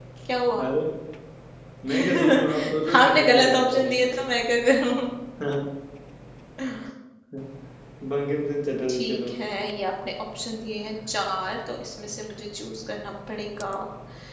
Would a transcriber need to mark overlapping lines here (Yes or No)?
Yes